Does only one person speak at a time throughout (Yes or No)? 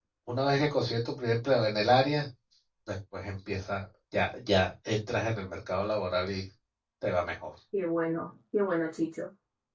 Yes